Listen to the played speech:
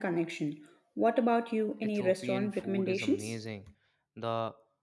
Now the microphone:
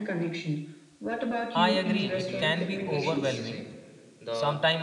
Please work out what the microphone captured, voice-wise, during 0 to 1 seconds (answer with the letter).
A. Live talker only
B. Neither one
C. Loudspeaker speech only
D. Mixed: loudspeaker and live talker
C